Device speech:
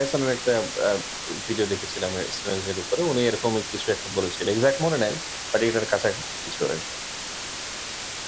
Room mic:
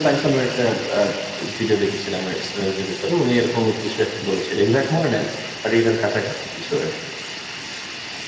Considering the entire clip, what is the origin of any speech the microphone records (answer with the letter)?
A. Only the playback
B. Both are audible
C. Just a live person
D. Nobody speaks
A